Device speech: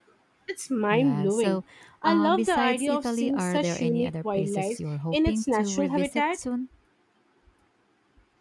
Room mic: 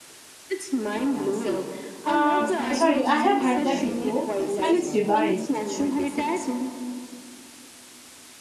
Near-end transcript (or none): Uh, sorry, I have had that before, and it's divine.